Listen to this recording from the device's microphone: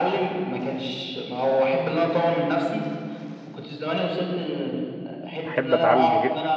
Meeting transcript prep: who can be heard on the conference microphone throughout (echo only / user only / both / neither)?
both